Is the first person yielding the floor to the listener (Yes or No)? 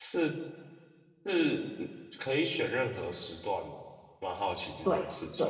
Yes